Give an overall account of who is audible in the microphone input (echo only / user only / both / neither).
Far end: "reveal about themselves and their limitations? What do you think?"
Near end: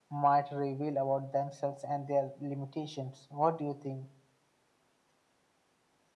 echo only